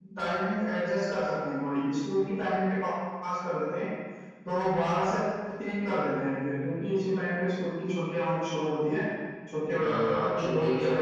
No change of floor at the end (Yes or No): No